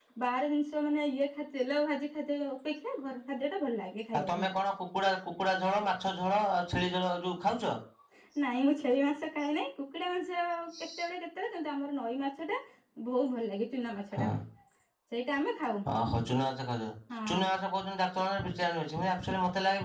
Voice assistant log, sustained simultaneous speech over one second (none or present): none